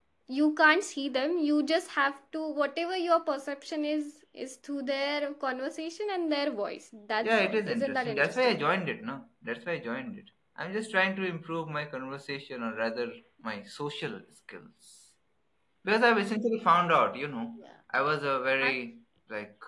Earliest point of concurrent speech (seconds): 7.2 s

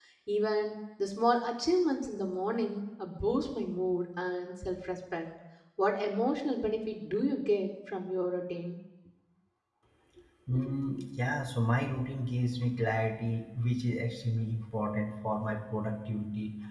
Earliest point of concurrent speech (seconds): none

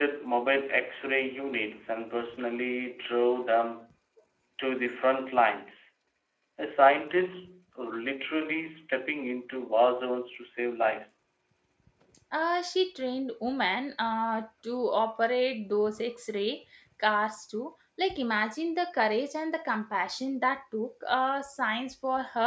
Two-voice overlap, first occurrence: none

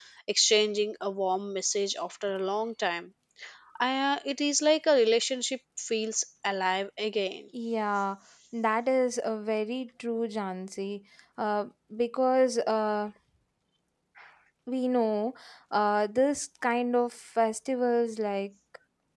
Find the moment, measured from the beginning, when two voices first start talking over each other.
none

